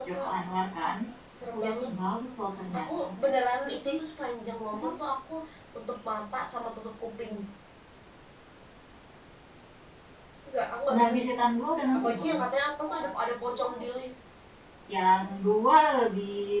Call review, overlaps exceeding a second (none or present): none